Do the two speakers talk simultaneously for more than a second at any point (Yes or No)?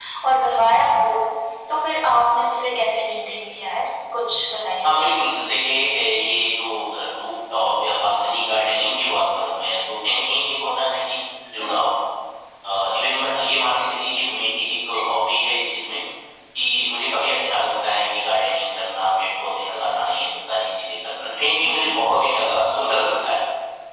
No